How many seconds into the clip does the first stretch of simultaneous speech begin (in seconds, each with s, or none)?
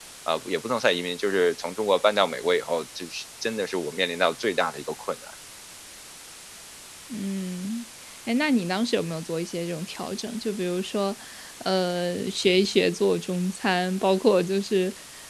none